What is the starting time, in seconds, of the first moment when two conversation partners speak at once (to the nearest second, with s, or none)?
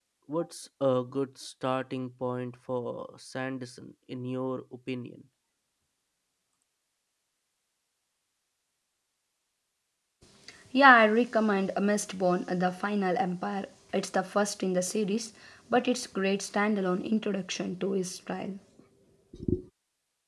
none